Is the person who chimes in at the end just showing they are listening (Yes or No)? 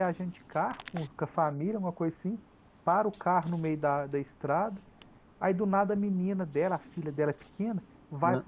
Yes